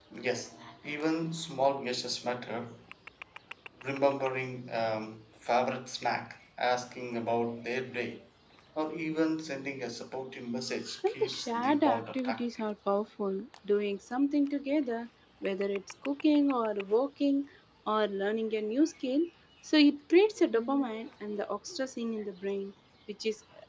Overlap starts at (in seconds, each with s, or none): 11.1 s